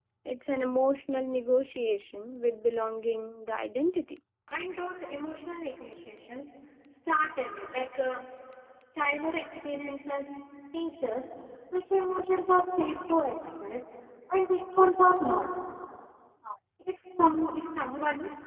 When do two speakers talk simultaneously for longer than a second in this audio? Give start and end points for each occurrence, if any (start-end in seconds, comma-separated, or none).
none